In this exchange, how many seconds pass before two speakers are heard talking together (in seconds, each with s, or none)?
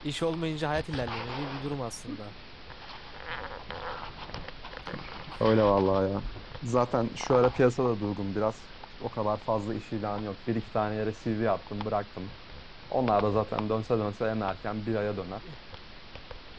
none